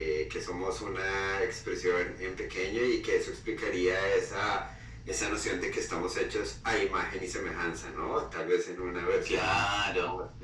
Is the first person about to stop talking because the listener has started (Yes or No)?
Yes